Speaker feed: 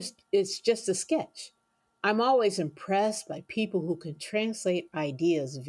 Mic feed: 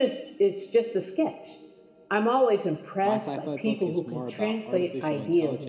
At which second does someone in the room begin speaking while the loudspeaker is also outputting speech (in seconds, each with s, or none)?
3.0 s